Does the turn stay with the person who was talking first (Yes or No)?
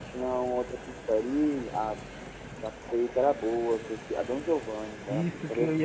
No